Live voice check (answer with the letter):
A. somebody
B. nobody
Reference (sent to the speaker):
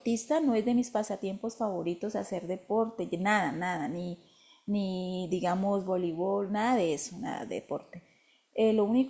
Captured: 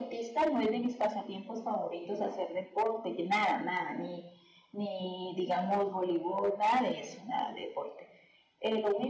B